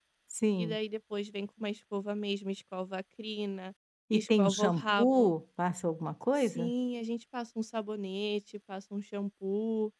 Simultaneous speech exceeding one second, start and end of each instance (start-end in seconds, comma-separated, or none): 4.1-5.3